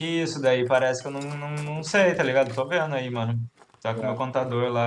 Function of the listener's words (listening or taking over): listening